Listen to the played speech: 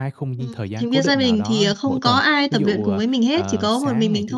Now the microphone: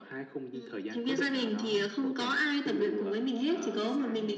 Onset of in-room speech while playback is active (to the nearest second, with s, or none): none